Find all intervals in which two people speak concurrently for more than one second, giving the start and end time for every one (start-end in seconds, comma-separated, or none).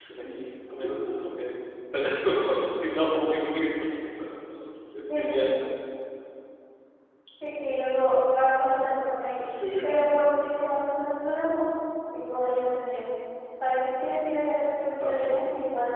none